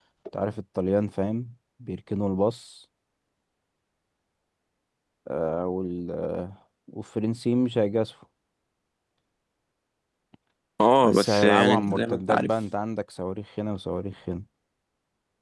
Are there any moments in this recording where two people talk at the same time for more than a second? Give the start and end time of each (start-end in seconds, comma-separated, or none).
11.0-12.5